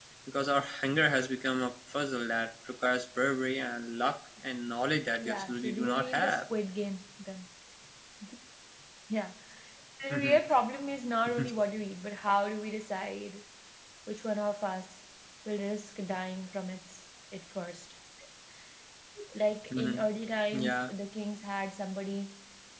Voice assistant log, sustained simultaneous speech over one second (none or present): present